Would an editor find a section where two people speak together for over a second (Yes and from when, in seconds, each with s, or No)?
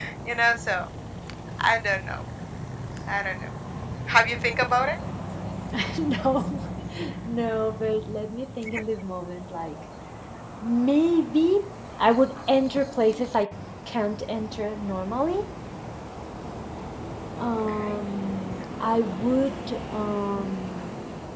No